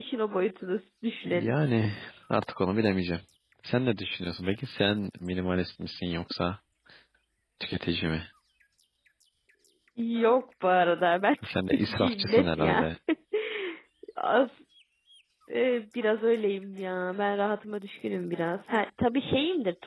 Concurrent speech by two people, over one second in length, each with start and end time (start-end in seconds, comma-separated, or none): 11.4-12.8